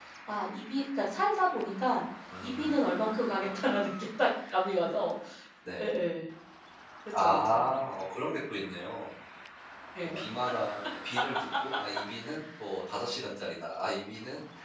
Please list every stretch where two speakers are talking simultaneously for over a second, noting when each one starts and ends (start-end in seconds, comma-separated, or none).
none